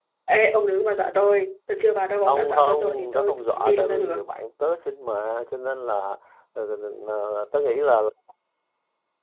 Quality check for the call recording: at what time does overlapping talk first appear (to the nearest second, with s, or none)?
2 s